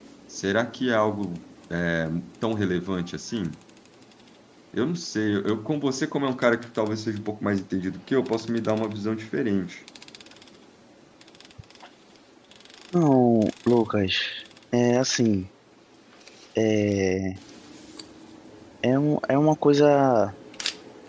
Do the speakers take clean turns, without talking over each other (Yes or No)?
Yes